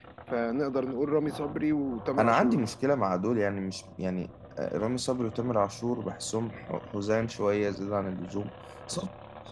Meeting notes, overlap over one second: none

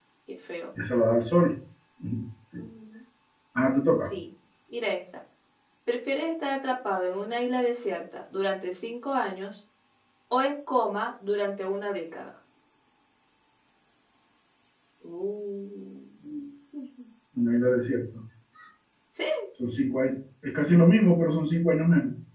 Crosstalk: none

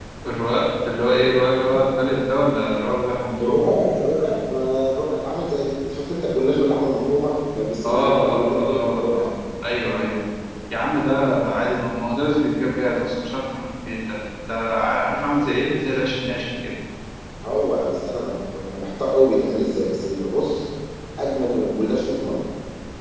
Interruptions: present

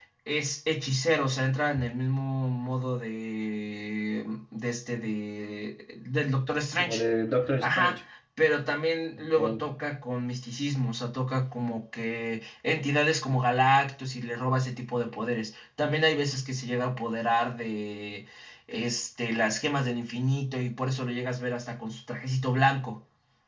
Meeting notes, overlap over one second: none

